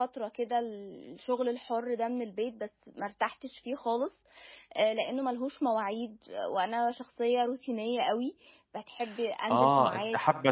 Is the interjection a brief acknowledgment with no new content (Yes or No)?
No